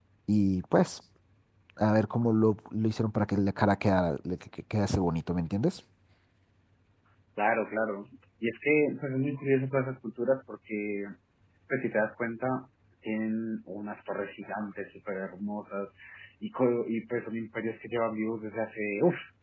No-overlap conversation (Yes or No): Yes